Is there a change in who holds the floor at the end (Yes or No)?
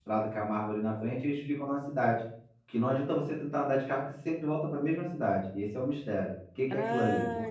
Yes